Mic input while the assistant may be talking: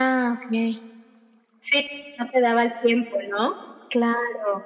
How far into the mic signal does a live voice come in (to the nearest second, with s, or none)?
none